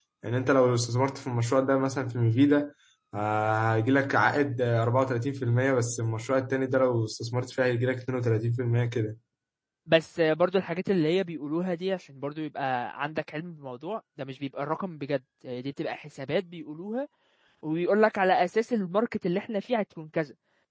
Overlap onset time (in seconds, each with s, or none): none